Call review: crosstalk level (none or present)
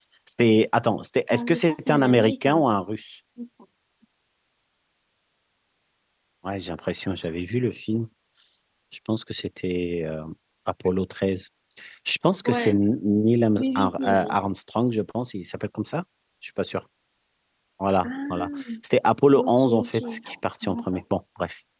present